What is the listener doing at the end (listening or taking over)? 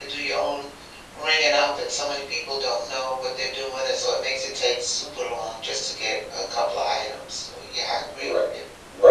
taking over